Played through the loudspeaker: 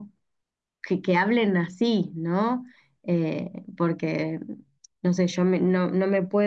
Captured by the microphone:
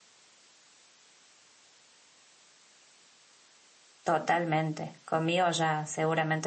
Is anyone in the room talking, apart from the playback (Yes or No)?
Yes